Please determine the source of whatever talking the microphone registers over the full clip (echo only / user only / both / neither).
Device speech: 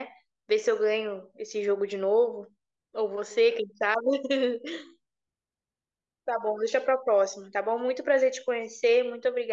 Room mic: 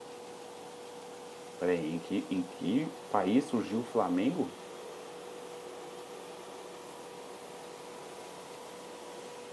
user only